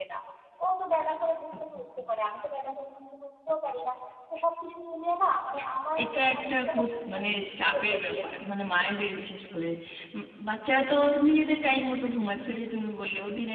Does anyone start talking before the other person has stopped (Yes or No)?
Yes